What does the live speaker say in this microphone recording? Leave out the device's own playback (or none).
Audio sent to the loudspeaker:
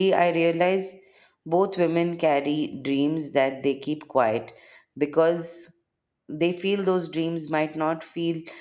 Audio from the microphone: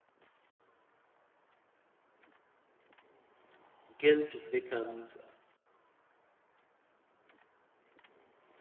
guilt becomes